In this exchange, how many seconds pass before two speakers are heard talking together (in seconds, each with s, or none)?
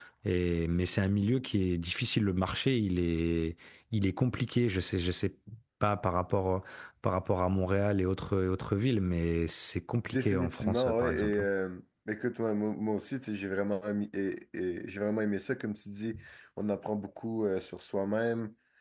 10.1 s